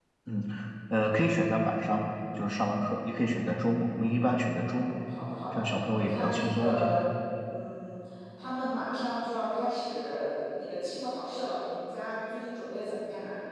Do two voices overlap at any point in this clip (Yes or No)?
Yes